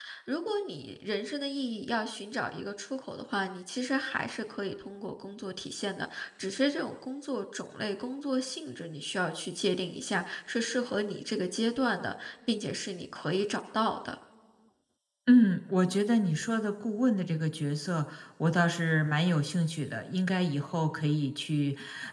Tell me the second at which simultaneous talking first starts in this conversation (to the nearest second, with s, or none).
none